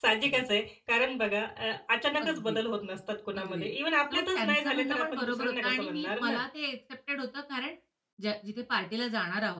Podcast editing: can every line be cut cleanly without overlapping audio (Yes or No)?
No